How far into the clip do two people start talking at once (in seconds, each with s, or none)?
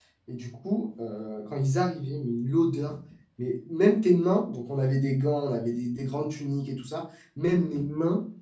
none